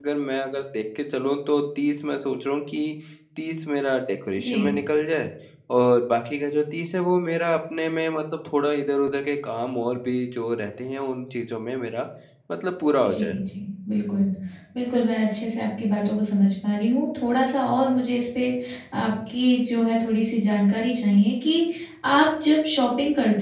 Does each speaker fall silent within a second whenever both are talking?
Yes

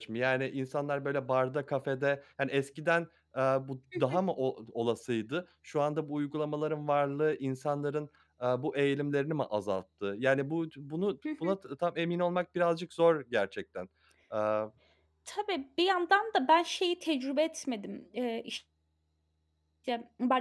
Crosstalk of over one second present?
No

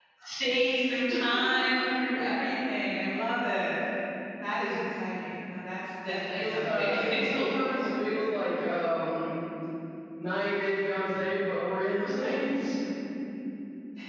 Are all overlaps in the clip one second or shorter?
No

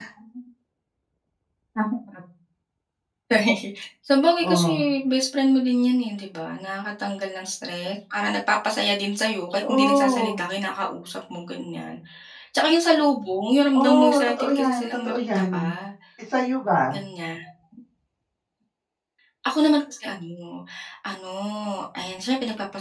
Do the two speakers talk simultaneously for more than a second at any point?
Yes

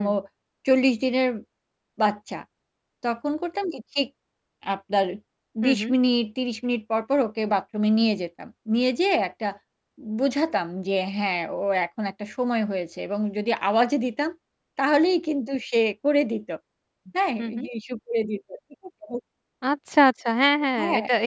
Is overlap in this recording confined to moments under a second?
Yes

